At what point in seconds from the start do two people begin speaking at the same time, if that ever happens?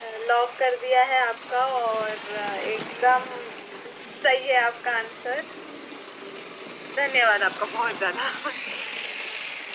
none

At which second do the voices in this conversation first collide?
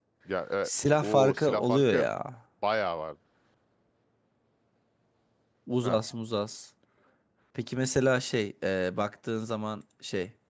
0.6 s

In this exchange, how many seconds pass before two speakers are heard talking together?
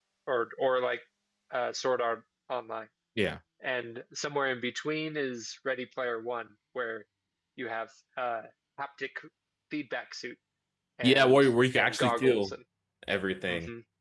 11.0 s

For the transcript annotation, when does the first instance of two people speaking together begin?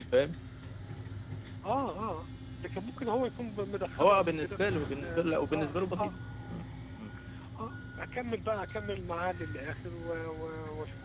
4.0 s

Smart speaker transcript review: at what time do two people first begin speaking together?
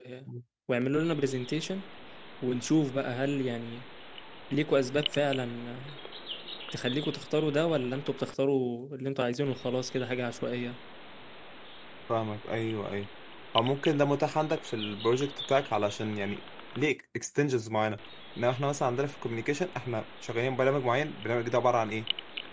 none

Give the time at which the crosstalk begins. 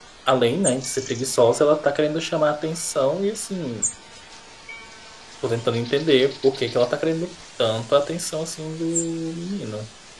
none

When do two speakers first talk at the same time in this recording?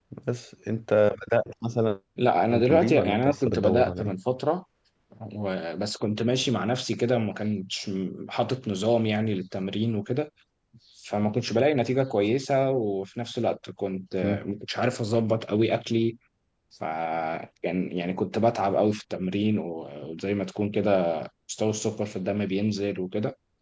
2.6 s

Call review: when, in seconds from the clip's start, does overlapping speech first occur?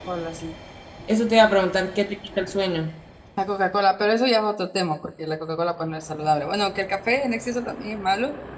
none

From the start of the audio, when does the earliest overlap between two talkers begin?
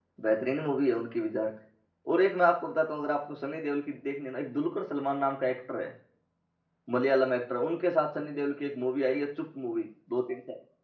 none

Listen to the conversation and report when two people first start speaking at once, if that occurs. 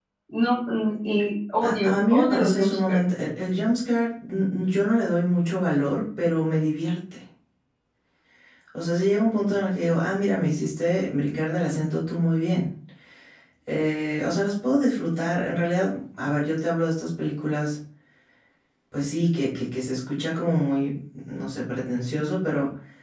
1.6 s

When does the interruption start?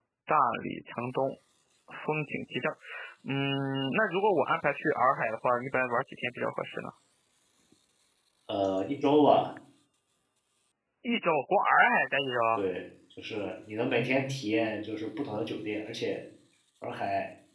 none

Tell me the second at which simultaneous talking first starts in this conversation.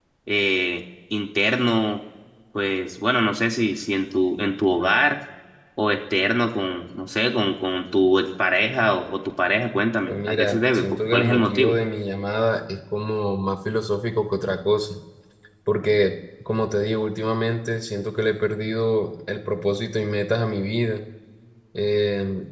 10.1 s

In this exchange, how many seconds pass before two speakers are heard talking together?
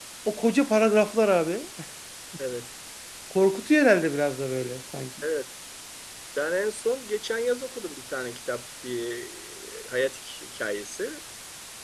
none

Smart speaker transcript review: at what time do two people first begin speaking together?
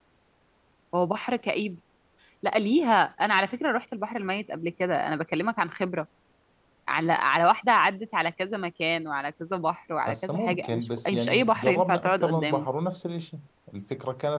10.1 s

